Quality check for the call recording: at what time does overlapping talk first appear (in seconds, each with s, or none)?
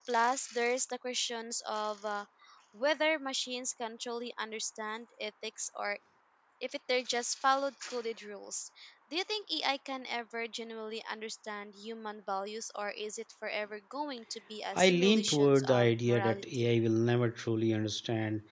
14.8 s